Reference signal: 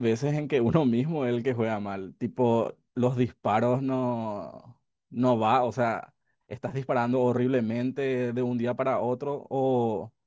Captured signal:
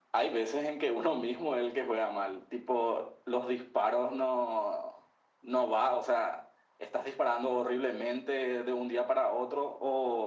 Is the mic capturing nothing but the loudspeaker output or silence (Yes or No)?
Yes